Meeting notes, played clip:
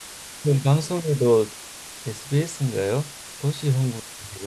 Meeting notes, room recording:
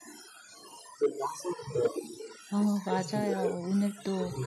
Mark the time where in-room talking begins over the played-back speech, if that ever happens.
2.5 s

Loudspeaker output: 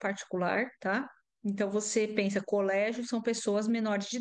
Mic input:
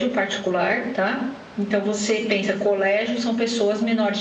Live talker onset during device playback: none

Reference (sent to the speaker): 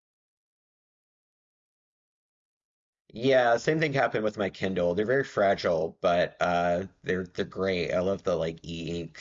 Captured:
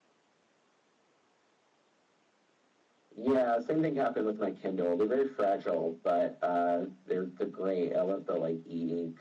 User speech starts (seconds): none

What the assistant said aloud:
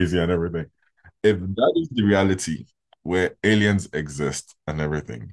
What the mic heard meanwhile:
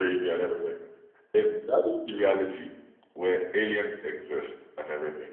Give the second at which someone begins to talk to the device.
none

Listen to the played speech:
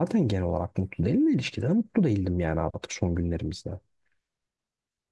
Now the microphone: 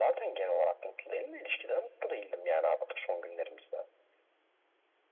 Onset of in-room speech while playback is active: none

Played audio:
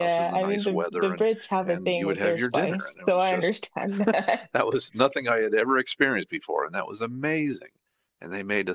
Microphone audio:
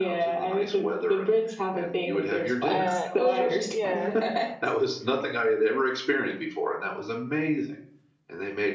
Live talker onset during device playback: 2.6 s

